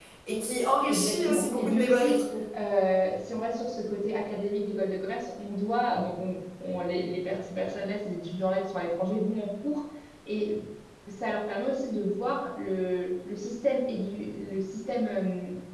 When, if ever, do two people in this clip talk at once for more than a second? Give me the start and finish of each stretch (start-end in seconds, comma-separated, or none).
0.9-2.2